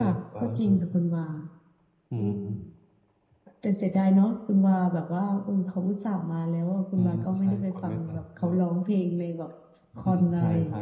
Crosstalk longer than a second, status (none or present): present